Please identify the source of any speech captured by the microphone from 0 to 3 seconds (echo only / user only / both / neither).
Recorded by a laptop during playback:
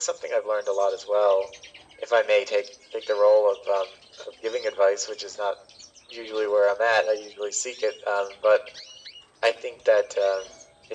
echo only